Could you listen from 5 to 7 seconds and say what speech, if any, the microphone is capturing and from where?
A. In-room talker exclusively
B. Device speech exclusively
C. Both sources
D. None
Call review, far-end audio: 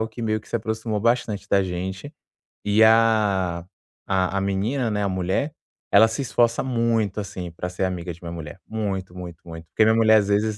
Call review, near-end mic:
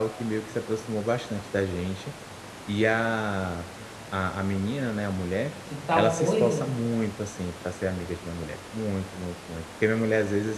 C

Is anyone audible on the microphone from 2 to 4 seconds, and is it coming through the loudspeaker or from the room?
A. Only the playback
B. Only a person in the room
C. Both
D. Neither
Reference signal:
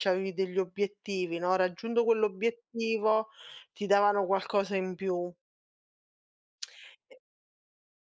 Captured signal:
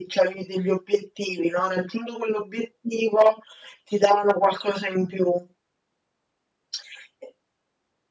A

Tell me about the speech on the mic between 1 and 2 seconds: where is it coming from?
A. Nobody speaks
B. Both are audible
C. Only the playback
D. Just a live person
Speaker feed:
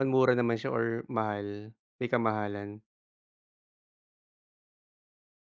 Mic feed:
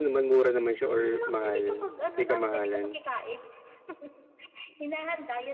B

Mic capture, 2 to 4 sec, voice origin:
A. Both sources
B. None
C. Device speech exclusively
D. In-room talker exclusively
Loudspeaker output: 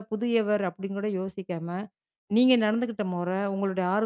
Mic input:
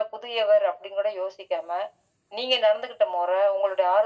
C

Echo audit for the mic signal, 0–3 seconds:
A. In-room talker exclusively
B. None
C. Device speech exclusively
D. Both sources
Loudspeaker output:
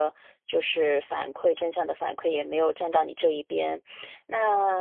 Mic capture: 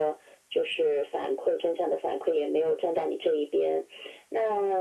C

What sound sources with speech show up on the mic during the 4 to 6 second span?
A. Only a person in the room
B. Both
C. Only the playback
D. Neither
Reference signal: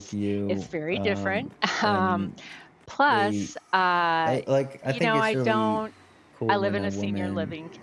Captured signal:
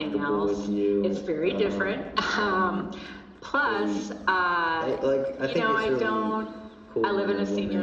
C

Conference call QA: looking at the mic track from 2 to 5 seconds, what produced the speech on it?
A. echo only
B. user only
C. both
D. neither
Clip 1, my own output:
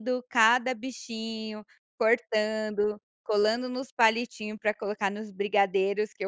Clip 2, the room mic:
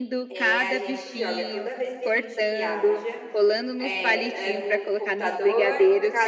C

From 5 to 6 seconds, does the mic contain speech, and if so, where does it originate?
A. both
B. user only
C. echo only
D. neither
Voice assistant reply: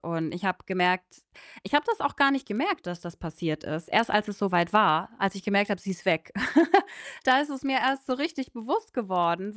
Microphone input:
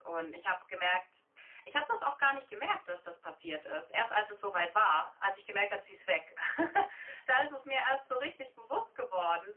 C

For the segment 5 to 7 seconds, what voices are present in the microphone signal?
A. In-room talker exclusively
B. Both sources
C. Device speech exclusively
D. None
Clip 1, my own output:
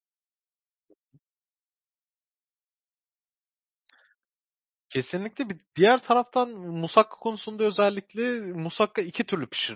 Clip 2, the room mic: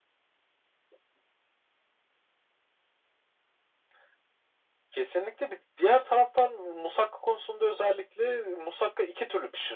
C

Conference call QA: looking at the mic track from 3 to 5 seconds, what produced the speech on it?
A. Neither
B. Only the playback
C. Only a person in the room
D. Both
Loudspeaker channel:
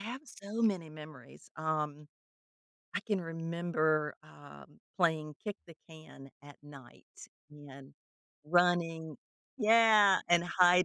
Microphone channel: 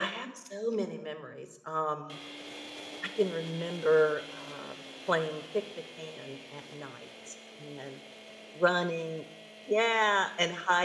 B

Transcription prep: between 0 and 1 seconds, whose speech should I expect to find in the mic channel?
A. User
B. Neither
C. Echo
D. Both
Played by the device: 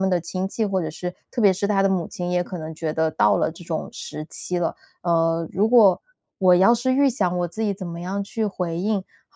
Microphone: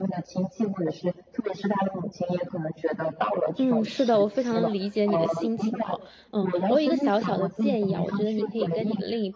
C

